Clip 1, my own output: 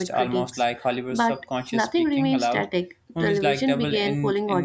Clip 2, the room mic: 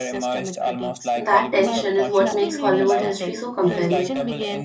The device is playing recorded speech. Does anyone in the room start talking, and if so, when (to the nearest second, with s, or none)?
1 s